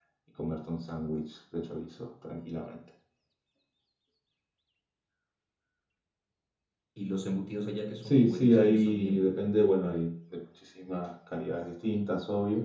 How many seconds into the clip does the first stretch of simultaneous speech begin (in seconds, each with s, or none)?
8.0 s